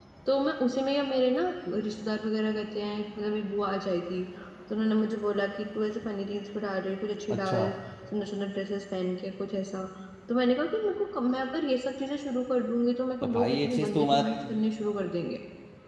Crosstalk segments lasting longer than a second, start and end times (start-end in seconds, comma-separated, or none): 13.2-14.5